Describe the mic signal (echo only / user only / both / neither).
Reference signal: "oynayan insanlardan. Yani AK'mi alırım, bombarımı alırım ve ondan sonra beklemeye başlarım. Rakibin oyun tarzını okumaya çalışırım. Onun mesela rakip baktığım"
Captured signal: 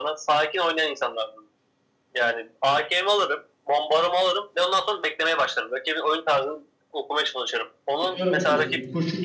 both